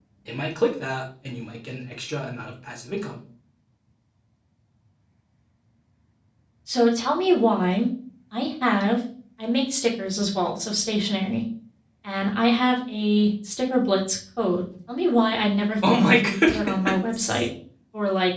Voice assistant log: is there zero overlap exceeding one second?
No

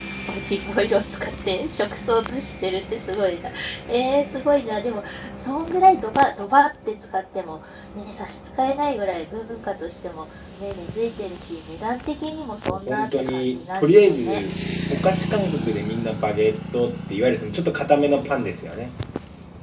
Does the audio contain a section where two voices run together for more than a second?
Yes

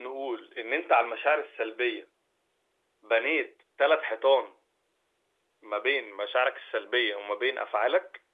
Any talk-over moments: No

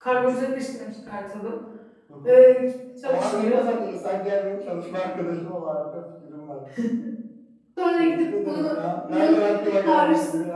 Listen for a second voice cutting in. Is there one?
Yes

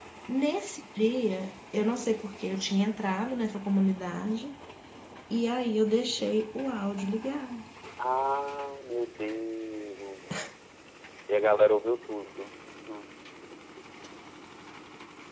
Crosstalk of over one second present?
No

